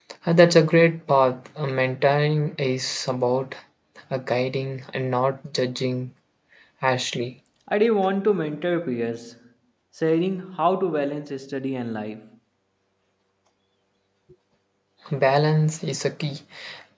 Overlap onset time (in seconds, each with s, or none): none